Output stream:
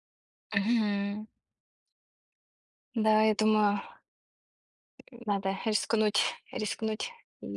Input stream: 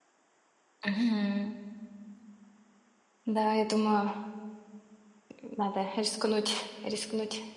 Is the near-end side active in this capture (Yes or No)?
No